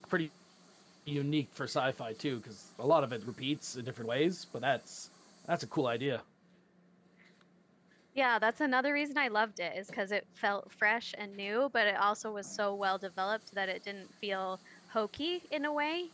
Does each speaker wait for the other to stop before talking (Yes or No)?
Yes